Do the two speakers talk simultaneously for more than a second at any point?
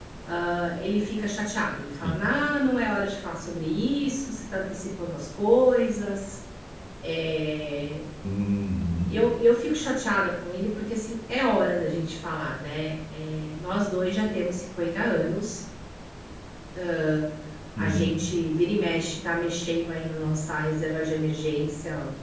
No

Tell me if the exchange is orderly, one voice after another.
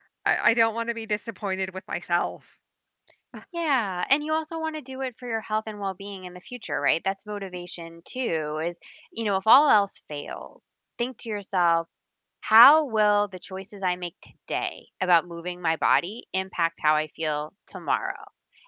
Yes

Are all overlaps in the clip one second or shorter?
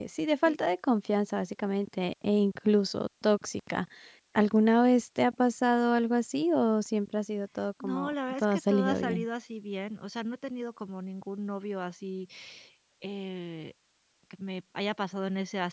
No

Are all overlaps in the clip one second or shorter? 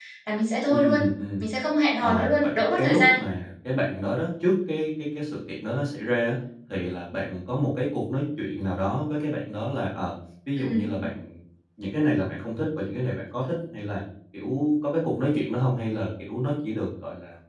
No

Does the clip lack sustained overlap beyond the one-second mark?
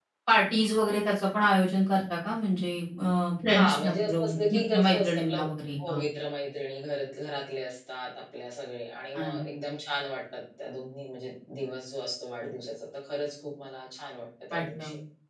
No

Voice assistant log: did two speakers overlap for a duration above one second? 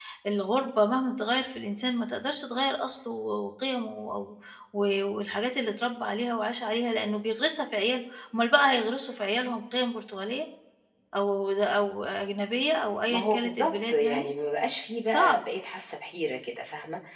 Yes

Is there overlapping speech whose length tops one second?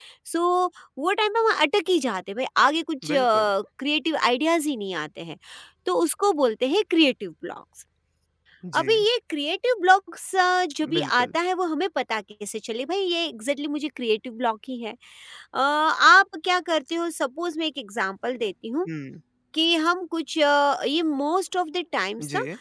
No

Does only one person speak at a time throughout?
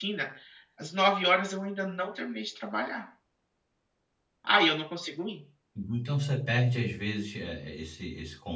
Yes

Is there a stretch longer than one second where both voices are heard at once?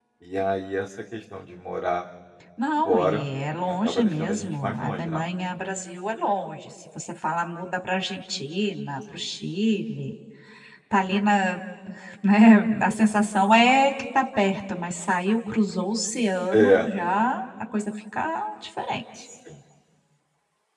Yes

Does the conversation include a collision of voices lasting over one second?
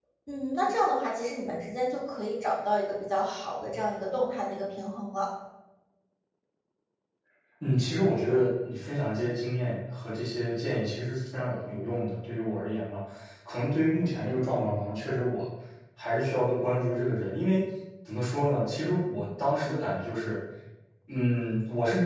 No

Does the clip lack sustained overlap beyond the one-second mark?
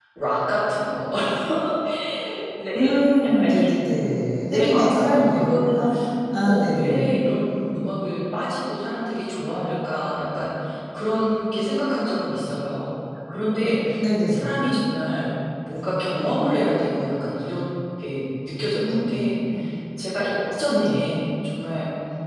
No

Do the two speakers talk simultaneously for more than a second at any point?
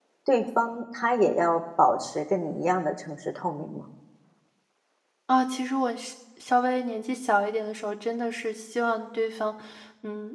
No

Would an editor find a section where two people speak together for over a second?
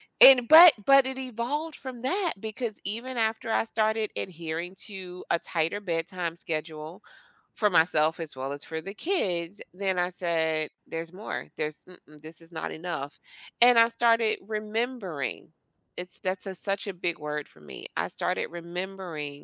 No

